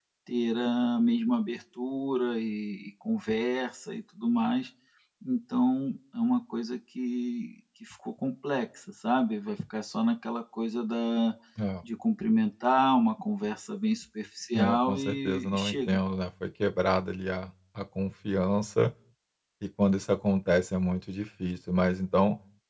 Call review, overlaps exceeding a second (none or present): present